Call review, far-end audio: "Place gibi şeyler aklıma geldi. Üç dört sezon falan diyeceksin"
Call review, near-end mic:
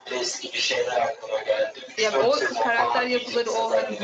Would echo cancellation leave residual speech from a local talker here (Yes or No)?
Yes